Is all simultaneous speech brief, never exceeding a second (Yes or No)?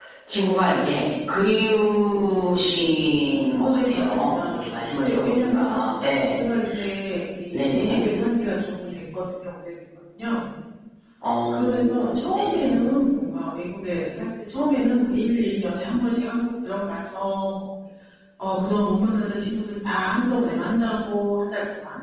No